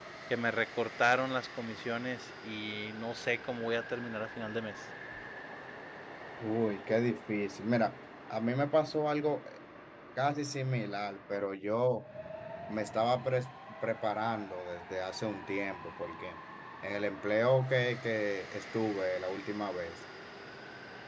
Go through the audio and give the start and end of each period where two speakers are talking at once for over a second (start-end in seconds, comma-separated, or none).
none